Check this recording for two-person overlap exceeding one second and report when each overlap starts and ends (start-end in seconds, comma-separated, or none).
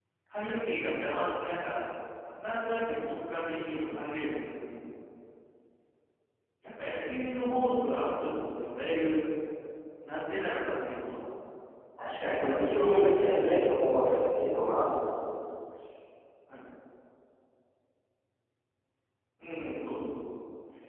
12.2-13.4